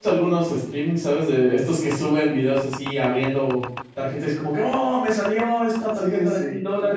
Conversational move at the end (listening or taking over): taking over